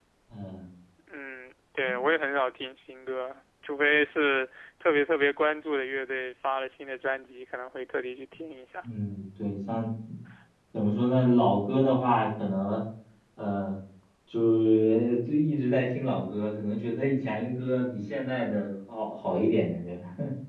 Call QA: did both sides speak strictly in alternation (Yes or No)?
Yes